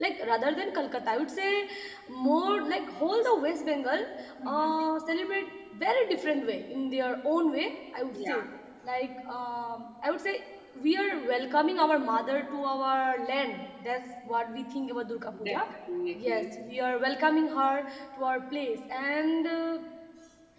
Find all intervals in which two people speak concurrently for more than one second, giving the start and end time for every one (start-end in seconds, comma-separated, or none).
none